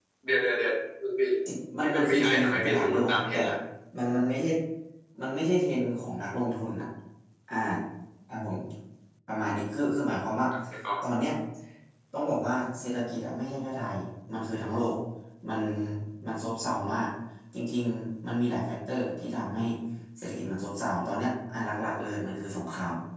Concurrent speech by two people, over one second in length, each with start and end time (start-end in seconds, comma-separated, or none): 1.8-3.4